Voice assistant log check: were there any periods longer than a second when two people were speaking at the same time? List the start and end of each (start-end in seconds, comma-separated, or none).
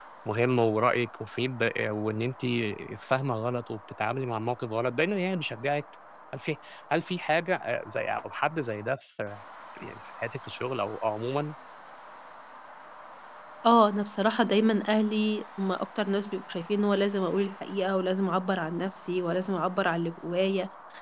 none